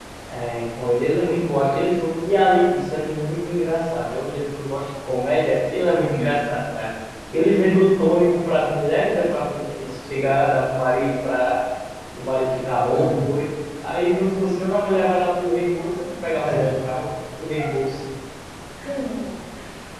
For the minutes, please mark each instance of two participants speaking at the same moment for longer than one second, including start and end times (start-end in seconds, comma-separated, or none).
none